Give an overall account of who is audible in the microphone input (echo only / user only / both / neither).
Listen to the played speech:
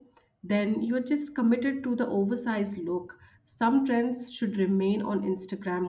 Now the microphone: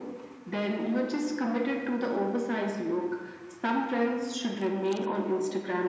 echo only